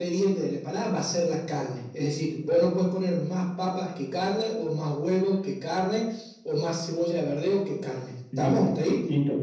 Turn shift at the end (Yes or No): Yes